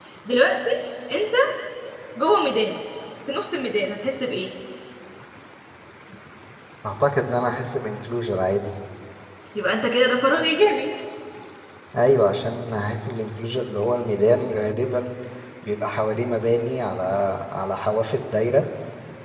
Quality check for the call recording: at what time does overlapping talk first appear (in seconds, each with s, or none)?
none